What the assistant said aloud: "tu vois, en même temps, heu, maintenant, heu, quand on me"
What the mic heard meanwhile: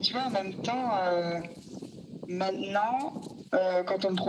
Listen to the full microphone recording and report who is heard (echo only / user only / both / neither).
echo only